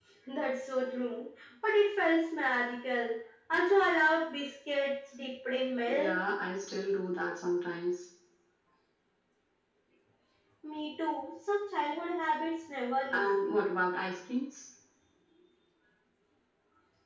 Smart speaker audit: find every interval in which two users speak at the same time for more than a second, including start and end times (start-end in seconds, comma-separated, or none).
none